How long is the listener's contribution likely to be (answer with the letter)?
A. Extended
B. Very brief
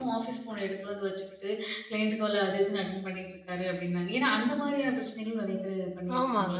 A